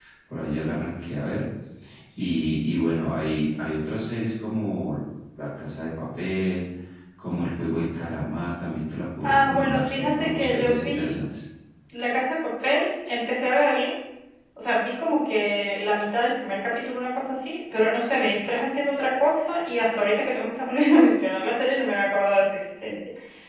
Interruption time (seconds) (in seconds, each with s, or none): 9.2 s